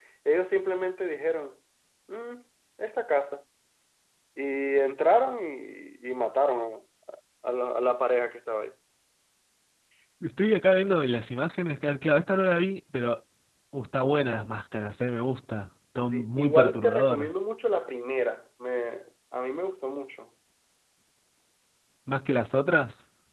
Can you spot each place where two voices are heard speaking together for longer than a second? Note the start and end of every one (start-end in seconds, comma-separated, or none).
16.0-17.3